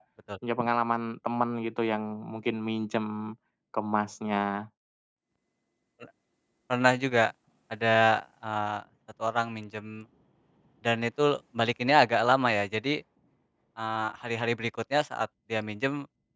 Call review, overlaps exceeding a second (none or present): none